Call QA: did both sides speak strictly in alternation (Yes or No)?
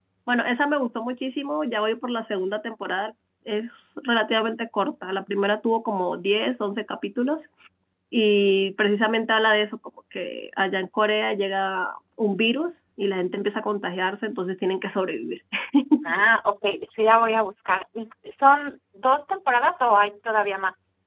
Yes